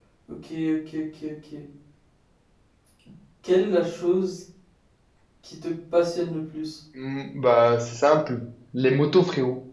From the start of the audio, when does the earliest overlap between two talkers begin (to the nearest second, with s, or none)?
none